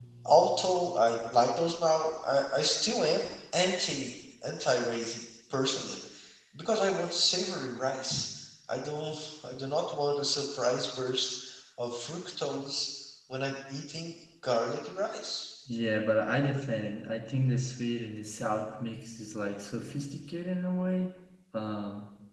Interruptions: none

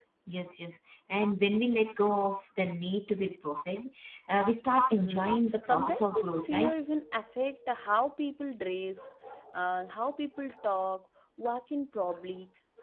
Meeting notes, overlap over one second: present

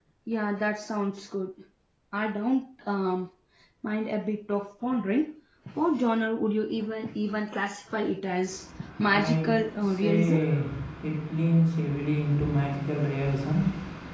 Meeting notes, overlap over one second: present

